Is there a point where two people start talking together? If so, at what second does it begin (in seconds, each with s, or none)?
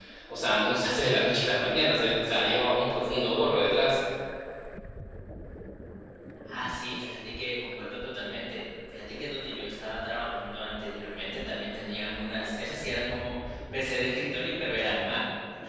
none